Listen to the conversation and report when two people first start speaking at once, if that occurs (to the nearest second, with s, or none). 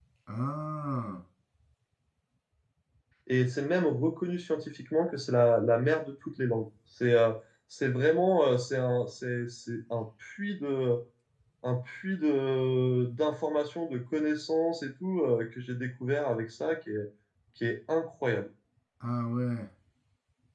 none